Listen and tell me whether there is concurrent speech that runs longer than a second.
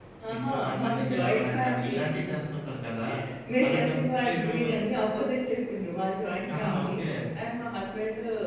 Yes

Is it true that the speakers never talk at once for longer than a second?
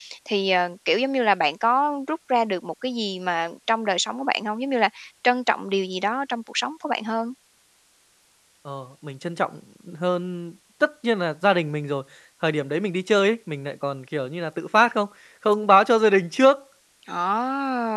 Yes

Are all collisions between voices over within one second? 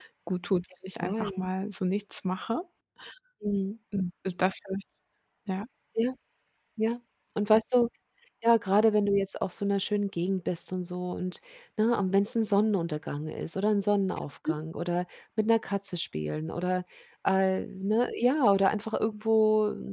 Yes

